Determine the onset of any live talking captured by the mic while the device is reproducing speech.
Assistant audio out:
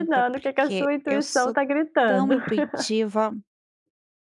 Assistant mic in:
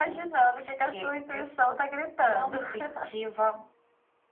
none

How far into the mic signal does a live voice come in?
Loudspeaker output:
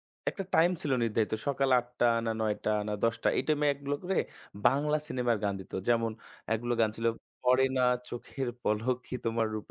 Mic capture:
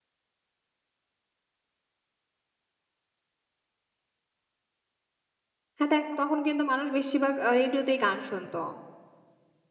5.8 s

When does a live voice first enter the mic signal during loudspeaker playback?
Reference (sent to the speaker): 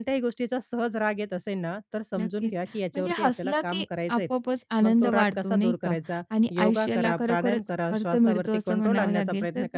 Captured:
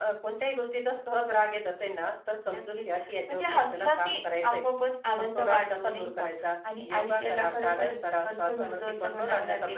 none

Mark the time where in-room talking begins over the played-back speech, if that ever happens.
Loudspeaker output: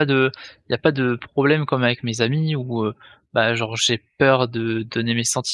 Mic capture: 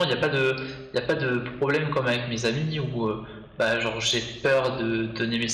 none

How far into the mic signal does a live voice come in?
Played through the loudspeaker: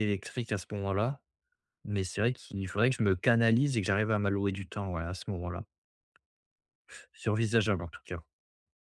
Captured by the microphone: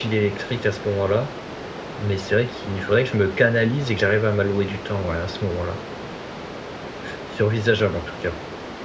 none

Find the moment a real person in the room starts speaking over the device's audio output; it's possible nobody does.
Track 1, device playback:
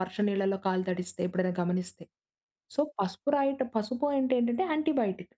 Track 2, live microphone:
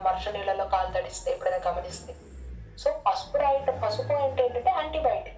none

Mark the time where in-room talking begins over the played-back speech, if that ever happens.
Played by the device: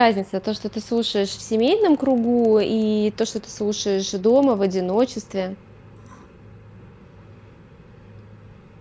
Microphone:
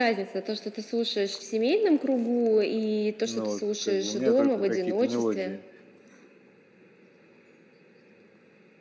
3.2 s

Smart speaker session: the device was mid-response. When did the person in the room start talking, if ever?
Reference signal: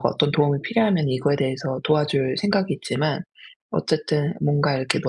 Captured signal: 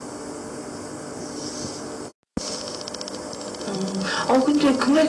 3.7 s

